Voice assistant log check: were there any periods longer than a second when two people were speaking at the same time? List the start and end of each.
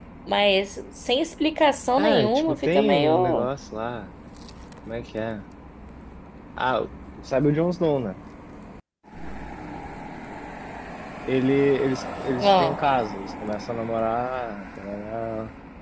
2.0-3.5

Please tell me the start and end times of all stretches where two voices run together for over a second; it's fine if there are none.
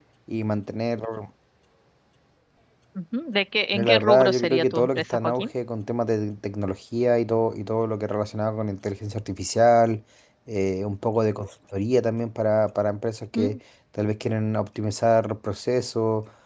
3.7-5.5

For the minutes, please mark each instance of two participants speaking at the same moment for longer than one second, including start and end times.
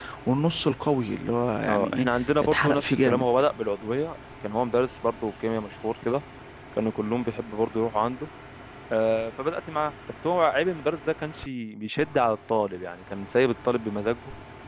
1.7-3.2

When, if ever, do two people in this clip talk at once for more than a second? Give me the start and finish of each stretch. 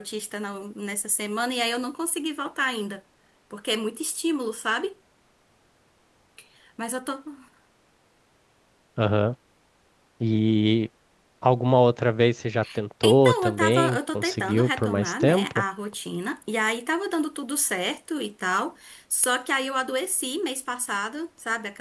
13.0-15.6

